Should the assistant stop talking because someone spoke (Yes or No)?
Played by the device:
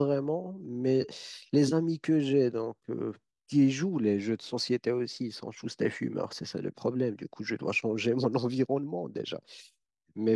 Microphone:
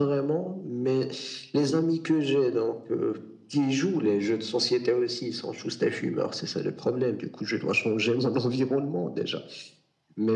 No